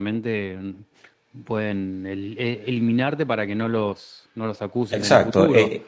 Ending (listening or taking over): taking over